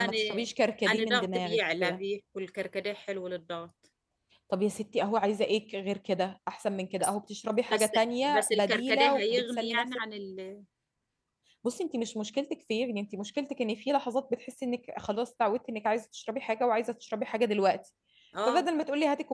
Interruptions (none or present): present